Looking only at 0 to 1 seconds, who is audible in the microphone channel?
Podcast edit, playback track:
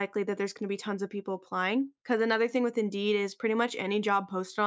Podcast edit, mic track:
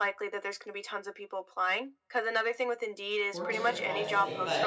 echo only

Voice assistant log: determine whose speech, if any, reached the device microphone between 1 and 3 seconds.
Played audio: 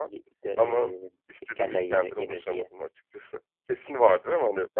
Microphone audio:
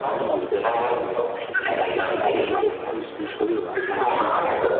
both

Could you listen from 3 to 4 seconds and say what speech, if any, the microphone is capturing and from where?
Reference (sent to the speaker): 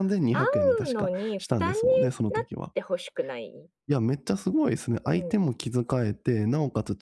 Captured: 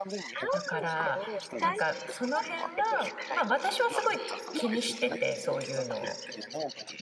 both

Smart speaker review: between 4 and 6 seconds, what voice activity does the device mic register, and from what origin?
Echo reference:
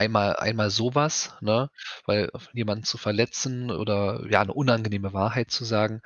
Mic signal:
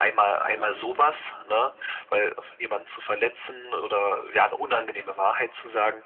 echo only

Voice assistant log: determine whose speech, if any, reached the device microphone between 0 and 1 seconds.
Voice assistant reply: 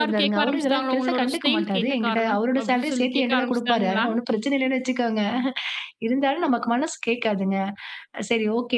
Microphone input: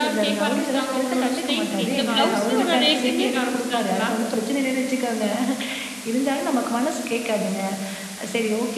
echo only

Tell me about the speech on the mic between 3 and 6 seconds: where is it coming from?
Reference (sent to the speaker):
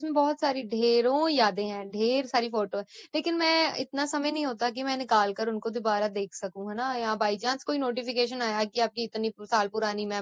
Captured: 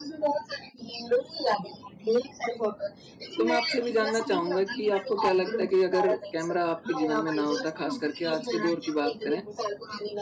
both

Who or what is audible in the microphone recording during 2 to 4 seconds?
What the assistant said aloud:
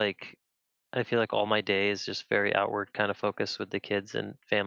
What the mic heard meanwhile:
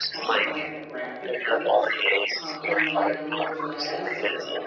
both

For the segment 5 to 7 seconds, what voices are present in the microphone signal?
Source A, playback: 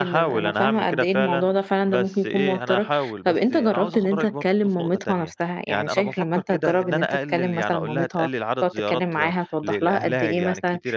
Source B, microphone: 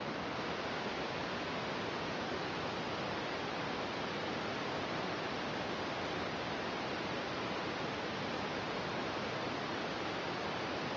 neither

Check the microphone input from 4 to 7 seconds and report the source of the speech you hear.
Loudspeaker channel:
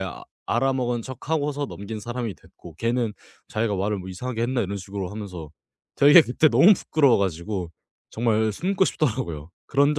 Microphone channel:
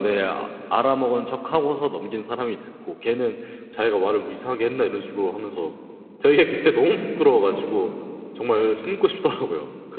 echo only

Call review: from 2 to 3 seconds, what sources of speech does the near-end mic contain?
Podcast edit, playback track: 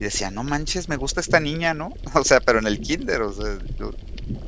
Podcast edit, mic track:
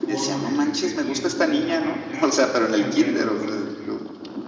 both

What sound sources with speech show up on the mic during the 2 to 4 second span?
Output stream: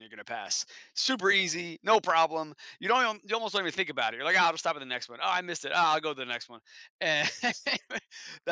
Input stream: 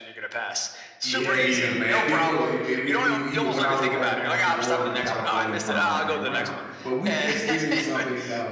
both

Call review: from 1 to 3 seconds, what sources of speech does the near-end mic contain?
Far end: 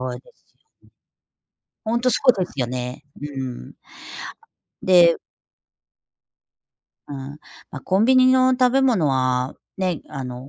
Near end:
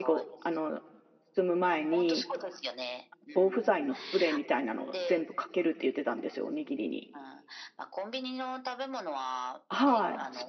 both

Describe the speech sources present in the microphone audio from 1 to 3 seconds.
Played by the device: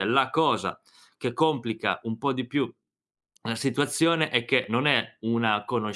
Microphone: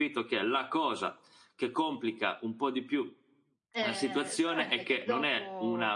echo only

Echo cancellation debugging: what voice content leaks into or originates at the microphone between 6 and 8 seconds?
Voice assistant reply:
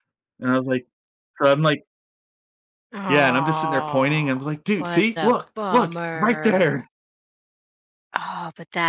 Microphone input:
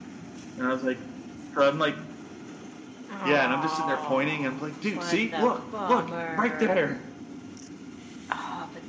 echo only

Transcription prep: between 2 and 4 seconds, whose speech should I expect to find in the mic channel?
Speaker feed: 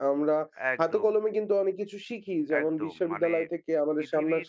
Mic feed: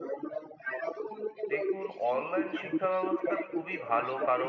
both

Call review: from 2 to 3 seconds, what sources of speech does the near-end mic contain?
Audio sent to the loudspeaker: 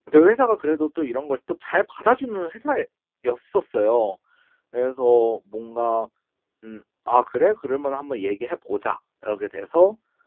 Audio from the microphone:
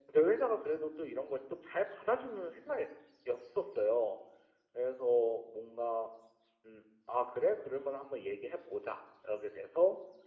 echo only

